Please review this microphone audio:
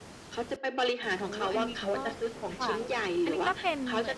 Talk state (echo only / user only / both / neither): both